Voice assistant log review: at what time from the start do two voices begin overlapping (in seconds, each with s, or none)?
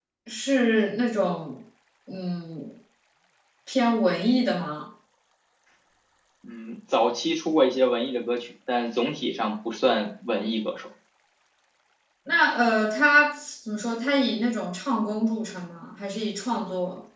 none